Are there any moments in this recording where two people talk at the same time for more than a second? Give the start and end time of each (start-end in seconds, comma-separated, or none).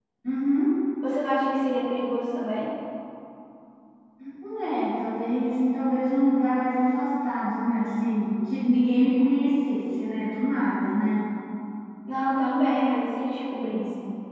none